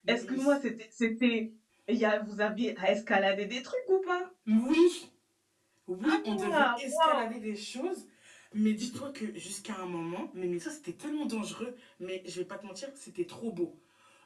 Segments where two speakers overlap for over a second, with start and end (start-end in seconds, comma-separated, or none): 6.0-7.3